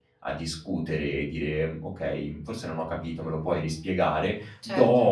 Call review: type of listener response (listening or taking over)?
listening